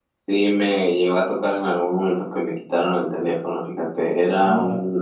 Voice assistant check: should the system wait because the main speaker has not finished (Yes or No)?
Yes